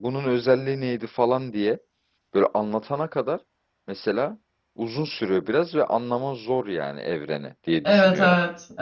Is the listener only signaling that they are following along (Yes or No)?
No